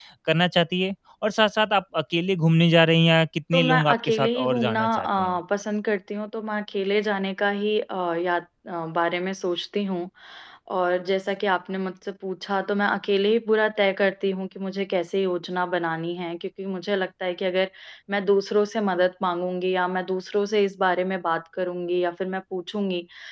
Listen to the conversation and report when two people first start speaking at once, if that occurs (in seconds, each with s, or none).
3.5 s